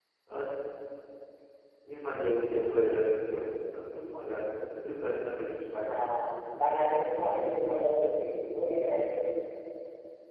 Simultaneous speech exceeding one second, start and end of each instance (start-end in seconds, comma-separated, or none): none